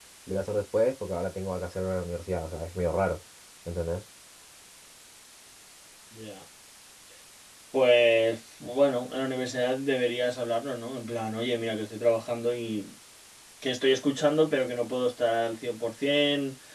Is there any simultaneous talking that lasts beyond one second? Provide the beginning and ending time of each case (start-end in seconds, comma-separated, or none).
none